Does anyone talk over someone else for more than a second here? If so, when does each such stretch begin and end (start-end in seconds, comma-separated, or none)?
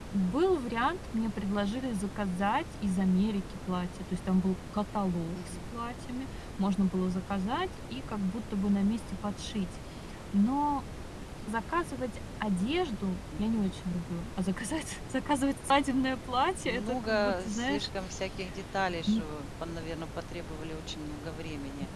16.6-17.9